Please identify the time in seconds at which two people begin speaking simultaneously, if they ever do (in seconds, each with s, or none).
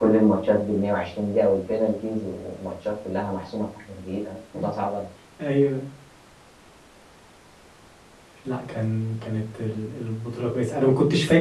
none